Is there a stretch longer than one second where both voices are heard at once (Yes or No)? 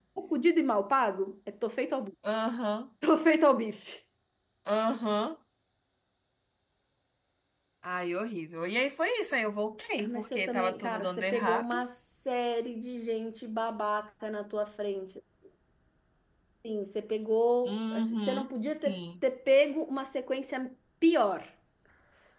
Yes